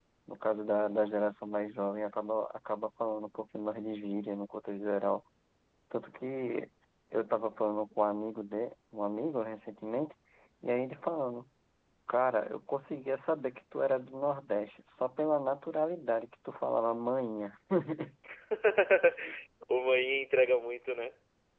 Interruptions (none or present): none